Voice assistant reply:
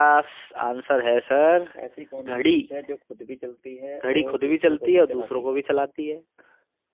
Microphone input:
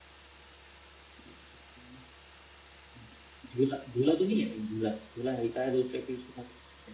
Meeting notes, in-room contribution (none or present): present